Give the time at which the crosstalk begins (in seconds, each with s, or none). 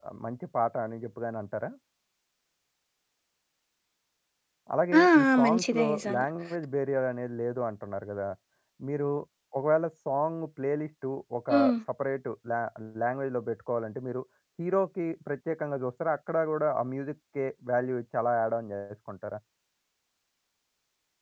5.0 s